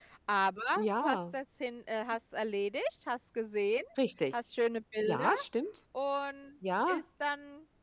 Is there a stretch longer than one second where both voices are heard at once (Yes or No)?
No